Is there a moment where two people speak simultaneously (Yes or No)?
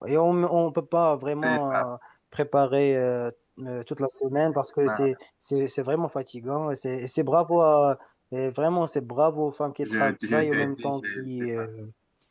Yes